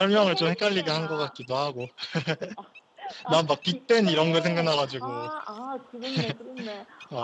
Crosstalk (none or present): present